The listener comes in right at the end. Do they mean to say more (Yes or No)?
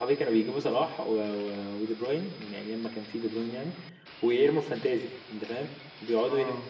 Yes